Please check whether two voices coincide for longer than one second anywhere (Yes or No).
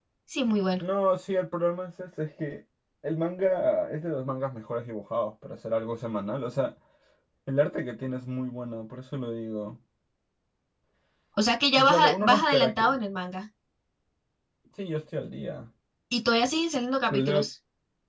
Yes